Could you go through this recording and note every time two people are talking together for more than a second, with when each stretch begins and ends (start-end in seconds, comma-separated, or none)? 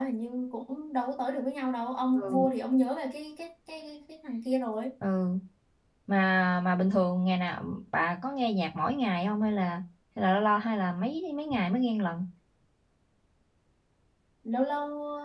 none